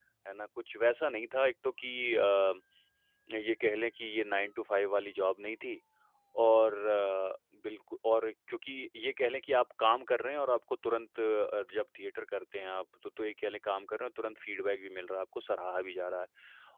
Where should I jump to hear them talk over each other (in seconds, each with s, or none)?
none